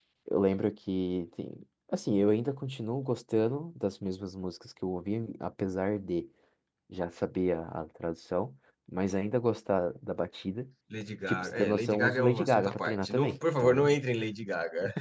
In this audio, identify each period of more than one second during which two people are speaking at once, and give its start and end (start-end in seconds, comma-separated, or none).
11.3-13.9